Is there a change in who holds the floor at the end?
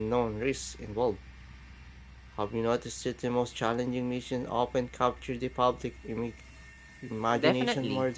Yes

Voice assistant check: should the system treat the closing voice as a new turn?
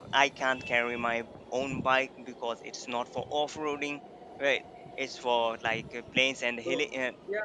Yes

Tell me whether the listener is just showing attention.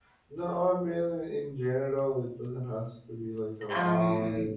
Yes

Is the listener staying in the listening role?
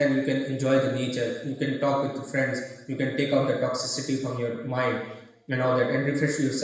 Yes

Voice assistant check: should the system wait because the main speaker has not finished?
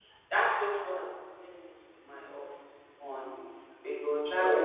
Yes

